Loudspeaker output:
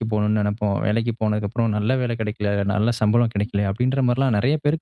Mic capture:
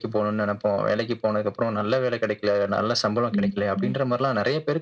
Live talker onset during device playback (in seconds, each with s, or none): 3.4 s